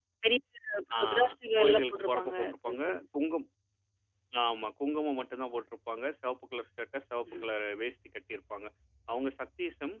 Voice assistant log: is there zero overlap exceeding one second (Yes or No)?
No